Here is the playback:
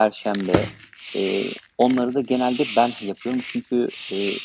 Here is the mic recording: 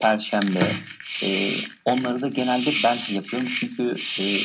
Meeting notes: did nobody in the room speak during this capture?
Yes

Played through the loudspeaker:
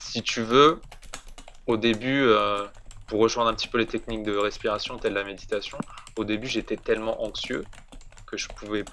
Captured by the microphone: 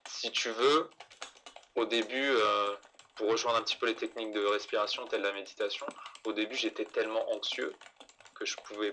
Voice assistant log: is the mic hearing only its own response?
Yes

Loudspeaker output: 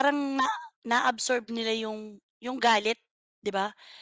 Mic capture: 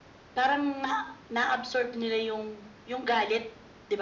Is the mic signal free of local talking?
Yes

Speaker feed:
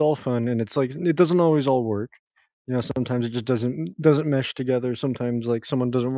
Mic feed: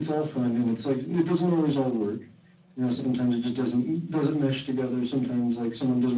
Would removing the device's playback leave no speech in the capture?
Yes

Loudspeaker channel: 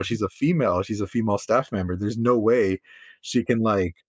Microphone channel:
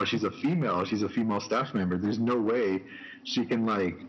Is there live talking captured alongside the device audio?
No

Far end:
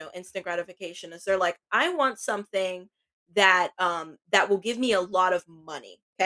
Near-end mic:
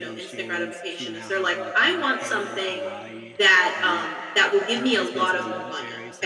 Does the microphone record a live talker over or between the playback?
Yes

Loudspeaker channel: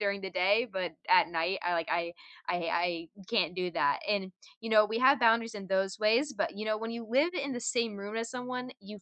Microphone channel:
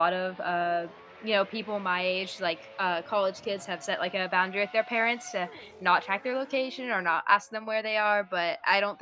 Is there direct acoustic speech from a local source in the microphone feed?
Yes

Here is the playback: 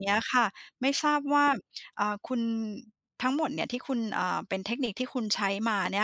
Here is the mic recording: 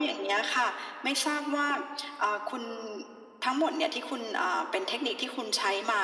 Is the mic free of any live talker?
Yes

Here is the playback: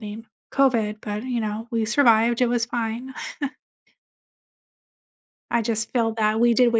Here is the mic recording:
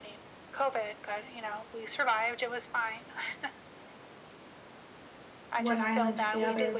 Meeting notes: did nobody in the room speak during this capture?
No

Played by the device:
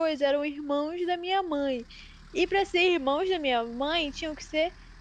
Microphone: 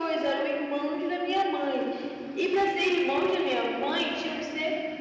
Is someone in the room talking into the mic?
No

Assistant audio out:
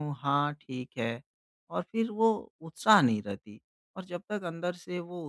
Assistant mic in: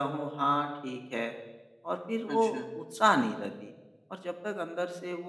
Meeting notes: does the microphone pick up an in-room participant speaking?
Yes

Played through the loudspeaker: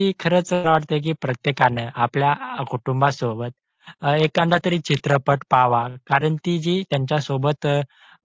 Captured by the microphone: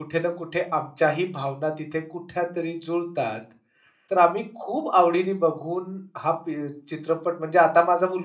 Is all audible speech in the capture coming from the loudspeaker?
No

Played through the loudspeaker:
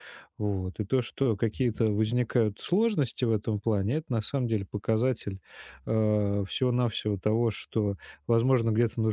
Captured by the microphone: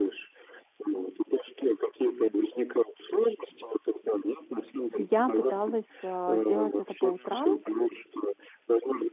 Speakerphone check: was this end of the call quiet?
No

